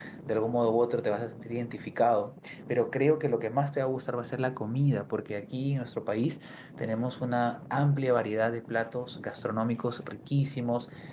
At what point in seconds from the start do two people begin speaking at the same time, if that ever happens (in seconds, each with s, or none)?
none